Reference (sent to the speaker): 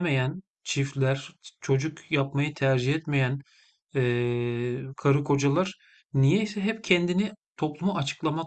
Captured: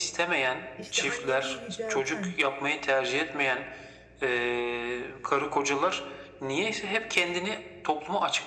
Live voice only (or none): işte anneliği yücelten